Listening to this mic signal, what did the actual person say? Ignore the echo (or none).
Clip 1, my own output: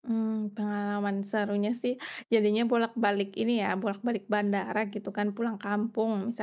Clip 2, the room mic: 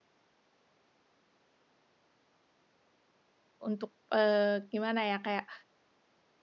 untuk, eee, gimana ya kayak